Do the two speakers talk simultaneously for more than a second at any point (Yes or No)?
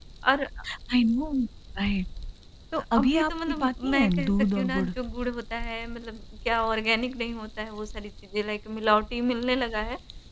Yes